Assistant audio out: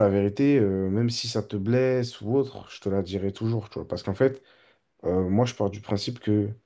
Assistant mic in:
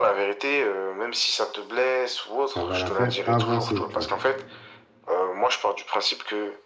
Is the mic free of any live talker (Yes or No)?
No